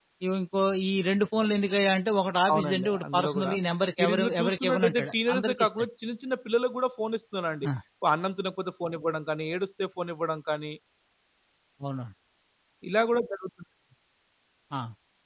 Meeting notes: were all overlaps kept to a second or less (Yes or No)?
No